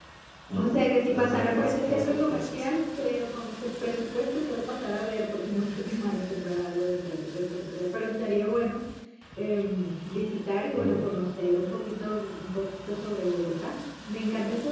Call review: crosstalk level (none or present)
present